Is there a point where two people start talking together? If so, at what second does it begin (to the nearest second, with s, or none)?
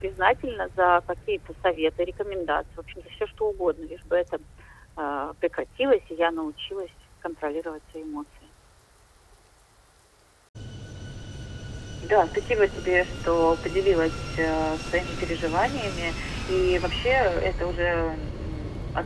none